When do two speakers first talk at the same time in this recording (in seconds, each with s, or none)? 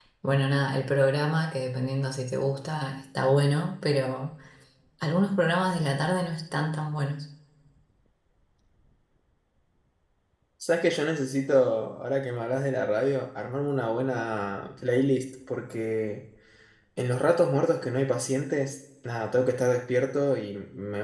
none